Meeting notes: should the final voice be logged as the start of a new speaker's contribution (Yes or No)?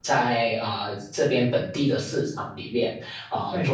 No